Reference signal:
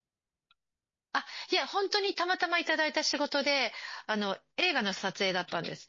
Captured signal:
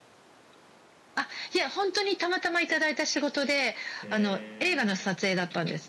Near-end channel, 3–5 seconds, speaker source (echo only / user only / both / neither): both